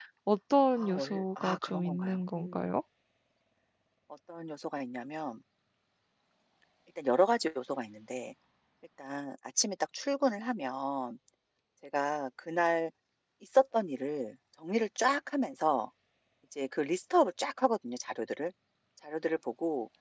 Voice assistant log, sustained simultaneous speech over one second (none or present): present